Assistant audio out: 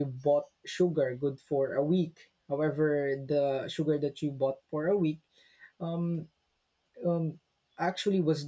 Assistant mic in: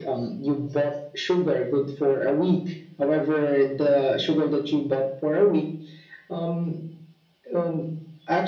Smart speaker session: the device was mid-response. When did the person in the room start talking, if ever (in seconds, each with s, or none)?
none